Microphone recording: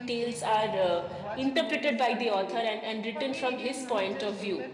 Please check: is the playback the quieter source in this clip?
Yes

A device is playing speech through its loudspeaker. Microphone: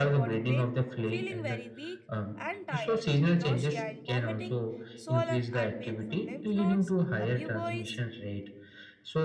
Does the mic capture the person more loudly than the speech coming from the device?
No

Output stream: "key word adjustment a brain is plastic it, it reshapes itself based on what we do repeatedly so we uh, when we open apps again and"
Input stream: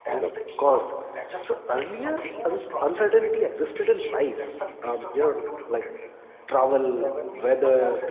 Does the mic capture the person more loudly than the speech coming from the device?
Yes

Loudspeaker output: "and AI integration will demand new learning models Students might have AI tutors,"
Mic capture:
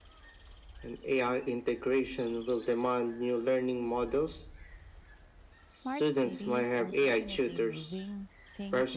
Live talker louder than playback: No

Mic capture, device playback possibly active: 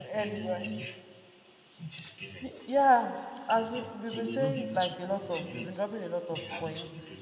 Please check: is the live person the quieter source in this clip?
No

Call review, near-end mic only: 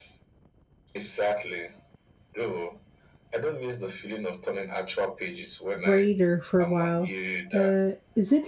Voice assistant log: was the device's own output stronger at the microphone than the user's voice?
No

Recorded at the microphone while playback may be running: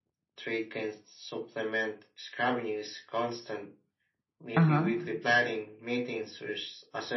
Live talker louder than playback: Yes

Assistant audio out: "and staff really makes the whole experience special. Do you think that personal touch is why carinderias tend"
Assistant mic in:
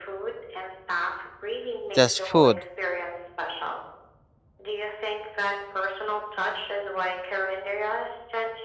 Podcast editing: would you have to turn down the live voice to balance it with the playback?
Yes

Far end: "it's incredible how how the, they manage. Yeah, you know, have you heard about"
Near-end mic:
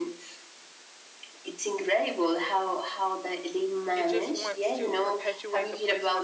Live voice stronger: No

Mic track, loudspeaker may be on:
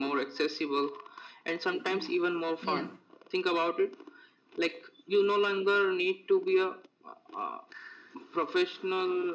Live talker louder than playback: No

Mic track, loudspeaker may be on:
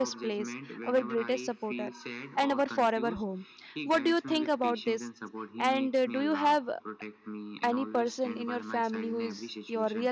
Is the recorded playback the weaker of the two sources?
Yes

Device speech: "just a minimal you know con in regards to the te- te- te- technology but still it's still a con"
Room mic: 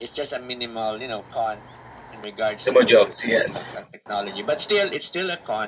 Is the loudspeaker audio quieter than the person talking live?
Yes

